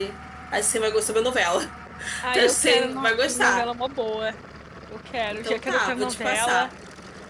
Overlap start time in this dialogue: 2.3 s

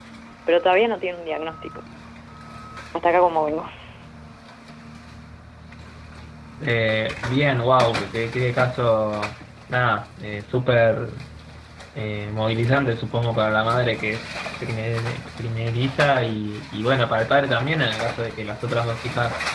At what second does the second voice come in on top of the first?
none

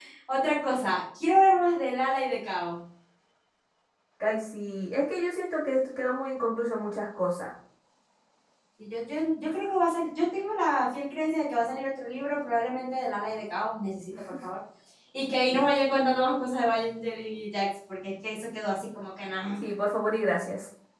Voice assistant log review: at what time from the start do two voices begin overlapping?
none

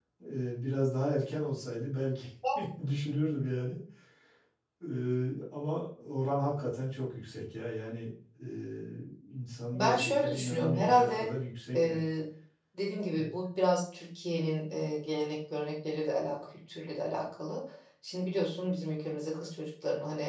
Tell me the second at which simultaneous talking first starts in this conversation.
9.7 s

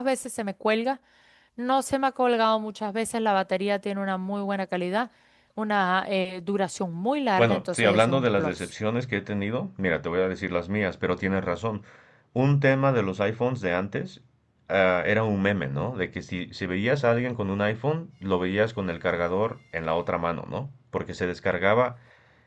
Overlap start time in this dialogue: 7.4 s

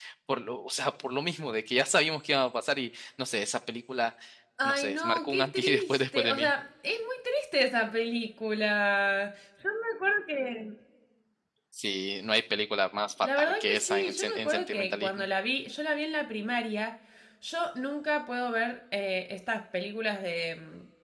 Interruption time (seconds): 4.7 s

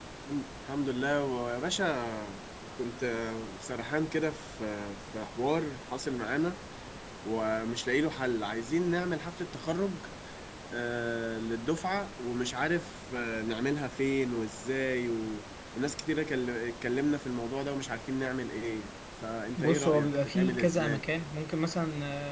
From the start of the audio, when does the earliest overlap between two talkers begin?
19.6 s

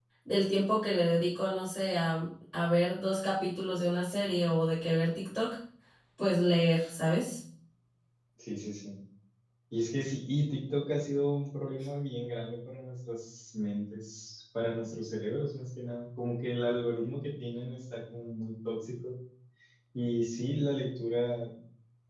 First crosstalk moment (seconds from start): none

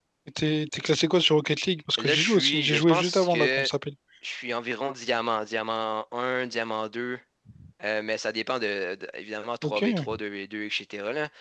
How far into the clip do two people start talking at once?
2.0 s

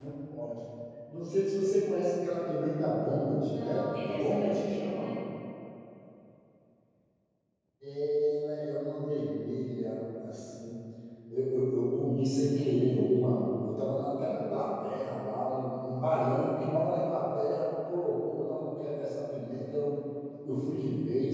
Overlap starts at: 3.5 s

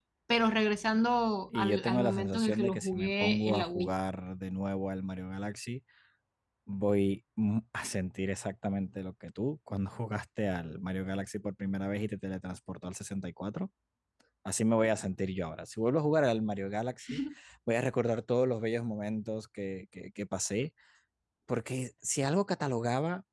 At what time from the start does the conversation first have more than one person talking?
1.5 s

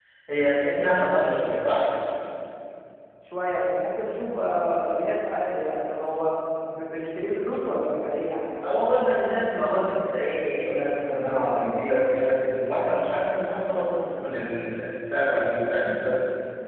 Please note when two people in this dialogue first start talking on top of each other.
none

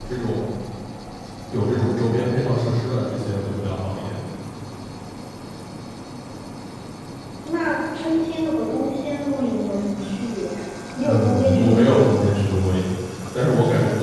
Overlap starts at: 11.0 s

